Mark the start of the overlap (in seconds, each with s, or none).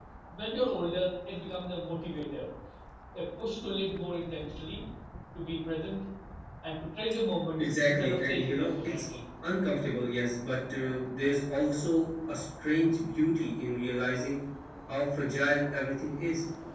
7.6 s